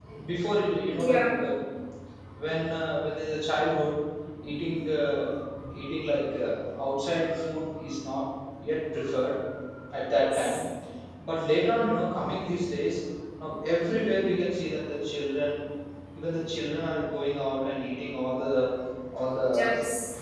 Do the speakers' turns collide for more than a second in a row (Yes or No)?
No